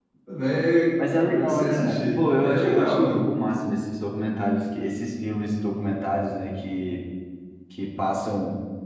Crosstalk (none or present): present